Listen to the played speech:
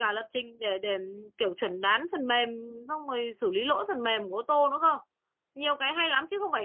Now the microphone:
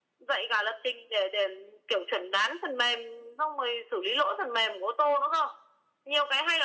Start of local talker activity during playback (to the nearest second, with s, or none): none